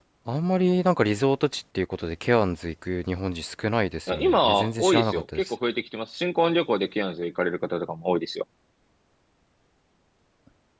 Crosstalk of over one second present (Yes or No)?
Yes